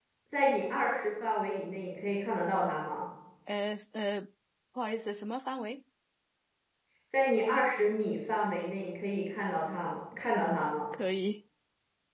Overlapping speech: No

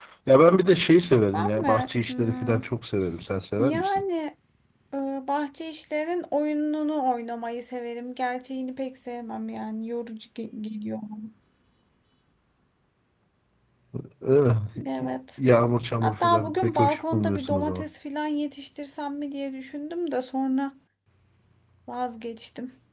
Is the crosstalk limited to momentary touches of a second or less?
No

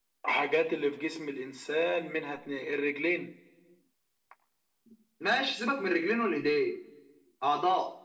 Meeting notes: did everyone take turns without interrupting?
Yes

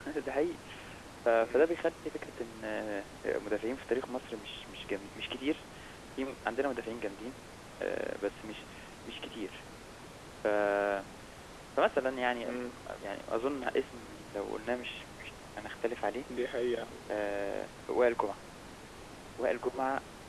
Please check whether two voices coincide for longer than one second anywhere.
No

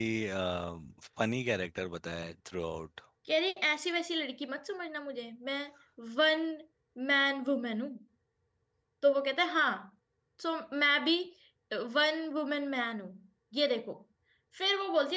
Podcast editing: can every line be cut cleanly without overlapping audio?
Yes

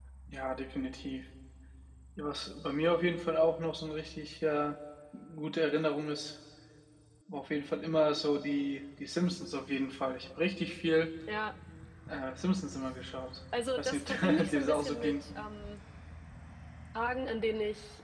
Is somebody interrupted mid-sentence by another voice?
Yes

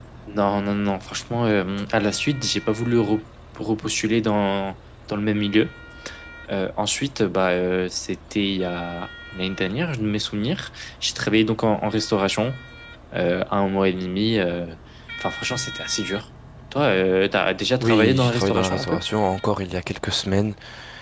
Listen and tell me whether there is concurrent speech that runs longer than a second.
Yes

